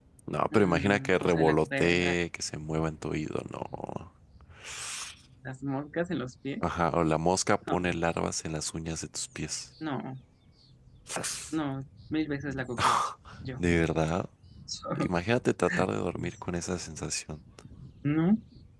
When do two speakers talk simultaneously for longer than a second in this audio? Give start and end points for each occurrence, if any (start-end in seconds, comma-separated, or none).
0.5-2.1